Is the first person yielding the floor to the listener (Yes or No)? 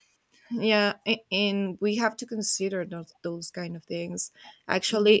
No